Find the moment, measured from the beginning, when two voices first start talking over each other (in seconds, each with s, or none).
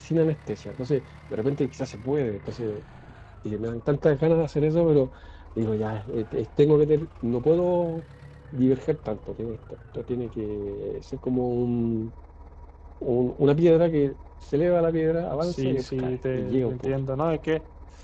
15.4 s